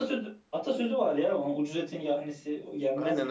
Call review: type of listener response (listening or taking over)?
taking over